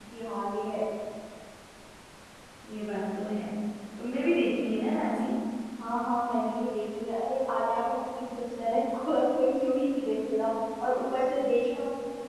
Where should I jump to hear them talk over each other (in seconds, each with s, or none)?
none